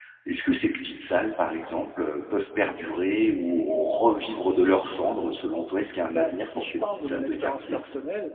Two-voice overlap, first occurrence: 6.1 s

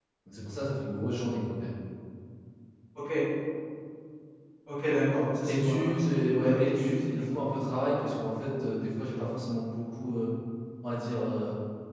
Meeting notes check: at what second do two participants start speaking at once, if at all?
5.5 s

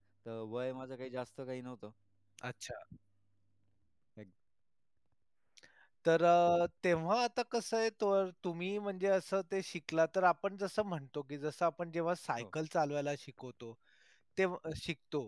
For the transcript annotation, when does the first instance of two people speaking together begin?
none

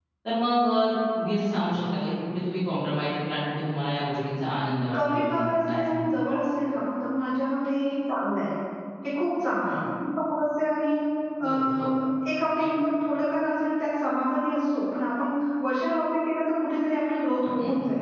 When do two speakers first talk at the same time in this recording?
4.9 s

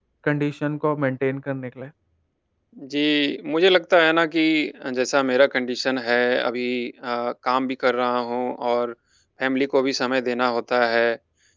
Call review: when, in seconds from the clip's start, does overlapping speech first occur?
none

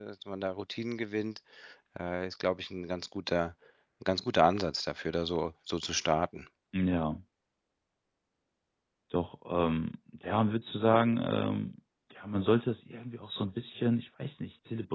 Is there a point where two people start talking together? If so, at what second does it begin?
none

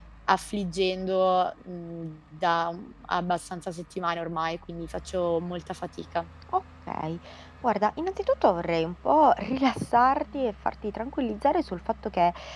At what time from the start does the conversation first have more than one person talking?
none

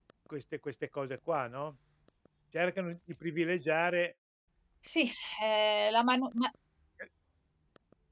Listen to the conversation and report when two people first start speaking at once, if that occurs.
none

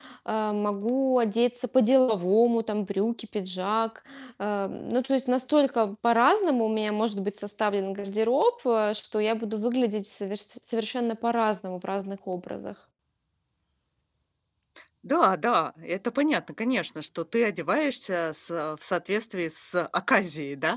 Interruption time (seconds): none

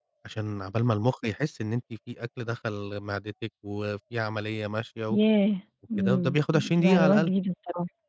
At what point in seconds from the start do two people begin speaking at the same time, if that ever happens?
6.0 s

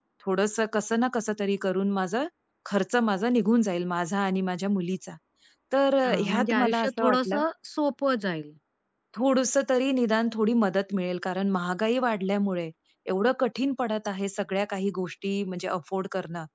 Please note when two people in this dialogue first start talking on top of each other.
6.0 s

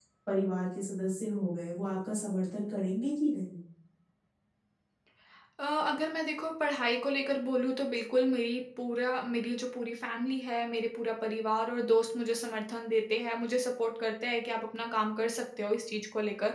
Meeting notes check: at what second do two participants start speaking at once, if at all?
none

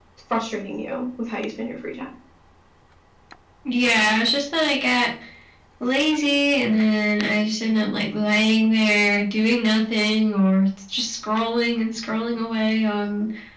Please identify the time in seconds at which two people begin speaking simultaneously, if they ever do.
none

